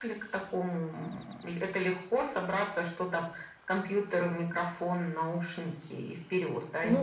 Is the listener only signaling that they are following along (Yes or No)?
No